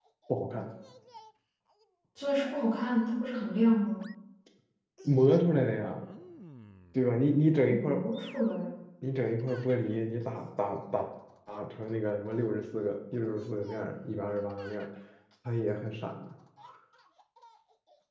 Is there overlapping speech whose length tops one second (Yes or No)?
No